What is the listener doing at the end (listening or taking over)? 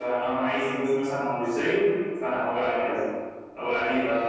listening